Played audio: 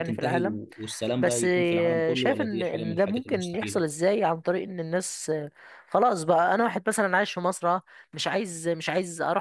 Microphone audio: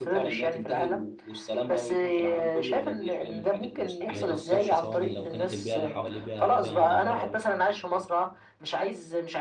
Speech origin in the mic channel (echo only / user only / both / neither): both